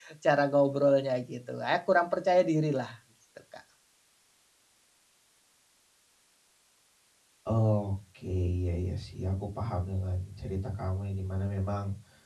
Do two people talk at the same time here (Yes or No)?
No